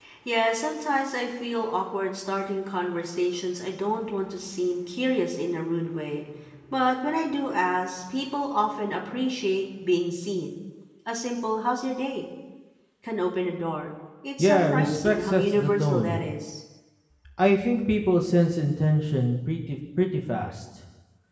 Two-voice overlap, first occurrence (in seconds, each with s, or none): 14.4 s